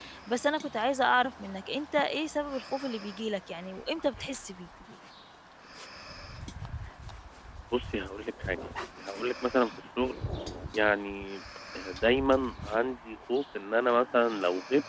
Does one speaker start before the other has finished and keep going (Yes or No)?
No